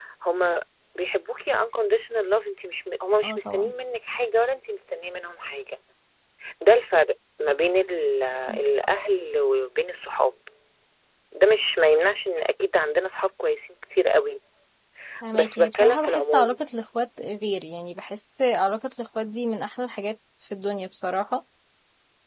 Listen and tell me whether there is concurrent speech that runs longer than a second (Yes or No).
Yes